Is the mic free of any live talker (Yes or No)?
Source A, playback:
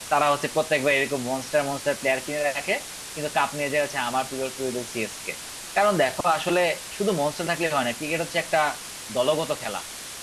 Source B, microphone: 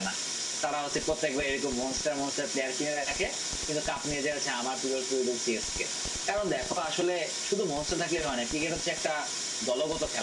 Yes